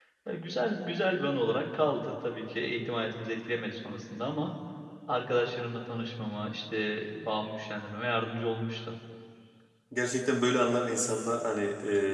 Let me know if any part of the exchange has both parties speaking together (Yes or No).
No